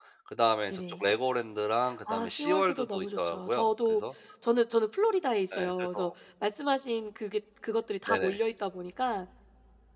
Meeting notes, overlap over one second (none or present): present